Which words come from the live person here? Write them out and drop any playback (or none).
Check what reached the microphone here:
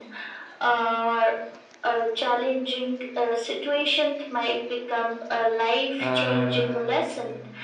and